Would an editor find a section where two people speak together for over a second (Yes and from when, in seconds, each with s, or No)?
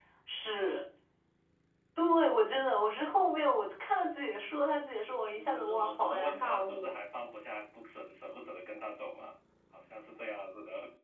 Yes, from 5.3 s